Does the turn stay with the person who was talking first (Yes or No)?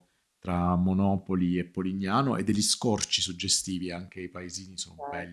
No